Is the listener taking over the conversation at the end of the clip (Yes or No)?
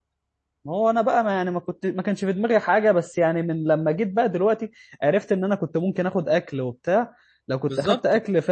No